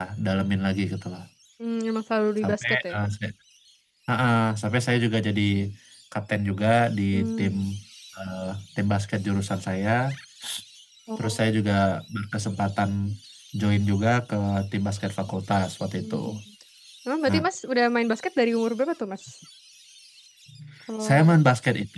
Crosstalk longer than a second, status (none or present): none